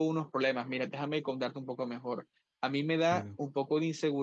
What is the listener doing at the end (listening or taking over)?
listening